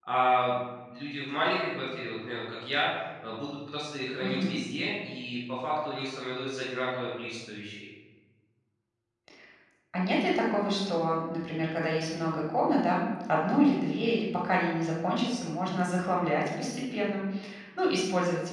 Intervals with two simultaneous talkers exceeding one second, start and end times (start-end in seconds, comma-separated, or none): none